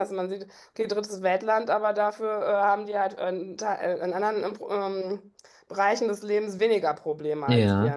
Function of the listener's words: taking over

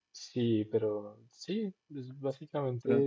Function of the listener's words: listening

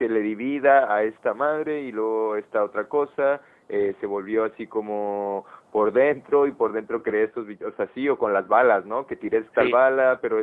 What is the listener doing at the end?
listening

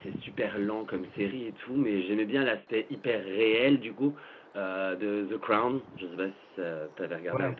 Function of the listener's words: taking over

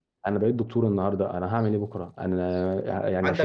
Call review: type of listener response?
taking over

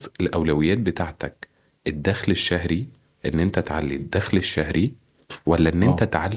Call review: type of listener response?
listening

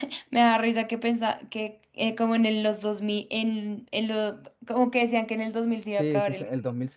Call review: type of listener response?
taking over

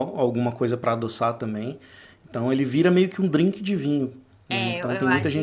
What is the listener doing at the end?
taking over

